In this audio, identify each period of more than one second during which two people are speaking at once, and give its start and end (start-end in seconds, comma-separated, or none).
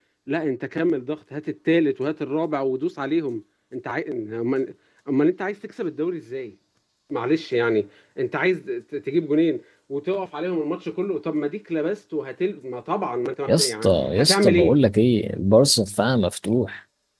13.5-14.8